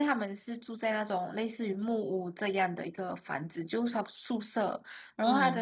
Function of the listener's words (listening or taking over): listening